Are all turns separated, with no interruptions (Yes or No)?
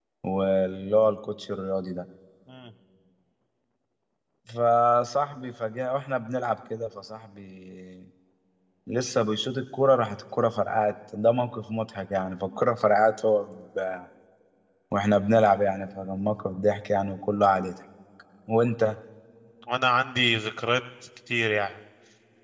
Yes